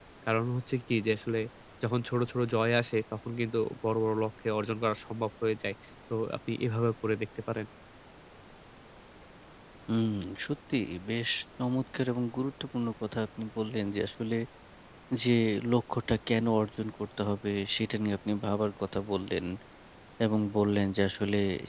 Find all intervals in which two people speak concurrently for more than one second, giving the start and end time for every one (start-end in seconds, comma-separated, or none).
none